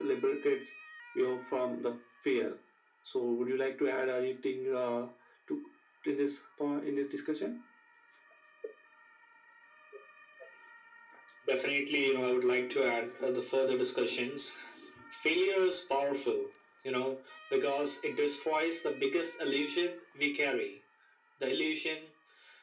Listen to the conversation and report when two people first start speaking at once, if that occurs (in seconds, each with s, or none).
none